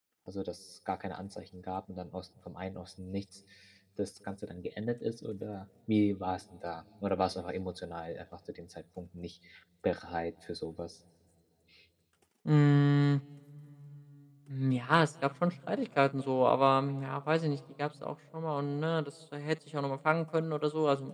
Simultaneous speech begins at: none

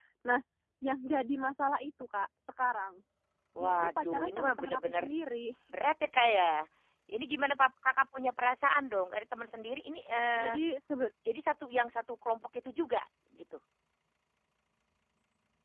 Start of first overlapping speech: 3.6 s

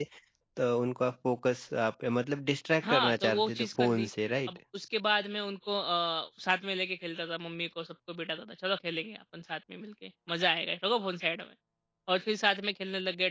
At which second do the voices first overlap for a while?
2.8 s

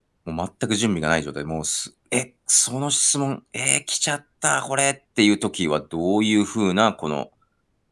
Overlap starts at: none

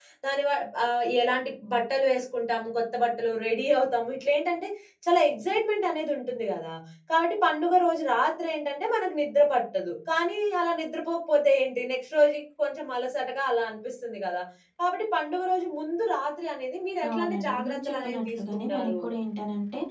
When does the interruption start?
17.0 s

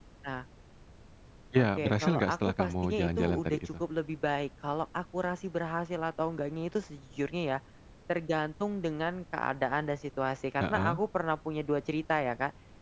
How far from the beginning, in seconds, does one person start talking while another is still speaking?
1.6 s

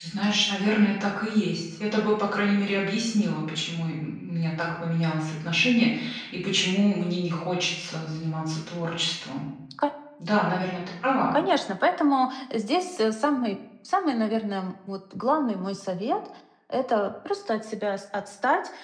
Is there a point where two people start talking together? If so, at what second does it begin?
none

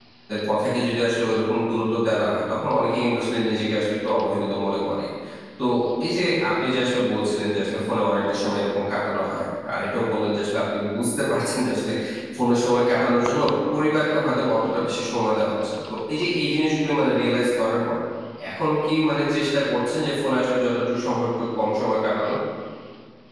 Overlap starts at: none

